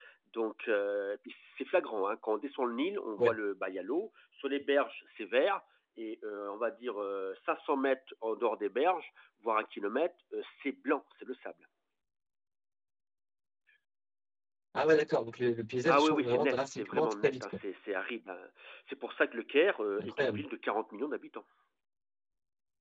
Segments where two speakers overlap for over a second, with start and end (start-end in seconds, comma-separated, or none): 15.9-17.6